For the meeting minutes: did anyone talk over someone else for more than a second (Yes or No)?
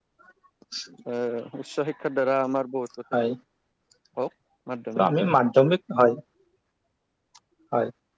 No